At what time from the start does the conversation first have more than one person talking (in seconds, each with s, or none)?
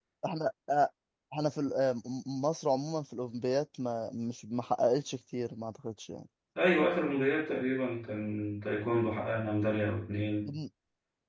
none